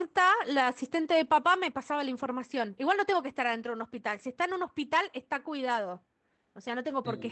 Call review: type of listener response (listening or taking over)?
taking over